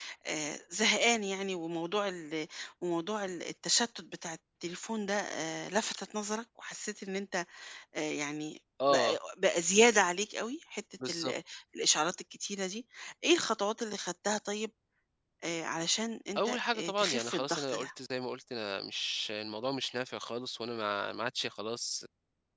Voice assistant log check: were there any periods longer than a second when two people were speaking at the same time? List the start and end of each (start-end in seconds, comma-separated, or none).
16.4-17.9